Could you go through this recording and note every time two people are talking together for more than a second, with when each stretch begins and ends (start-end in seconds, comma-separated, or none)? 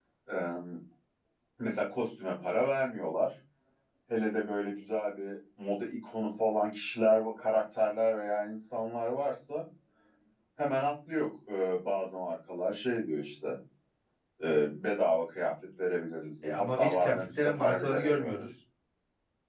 16.4-18.4